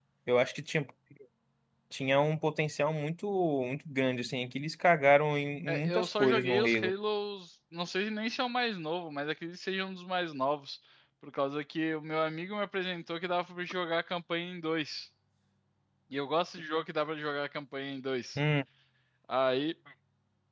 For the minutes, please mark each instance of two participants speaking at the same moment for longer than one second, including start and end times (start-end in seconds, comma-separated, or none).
5.7-6.9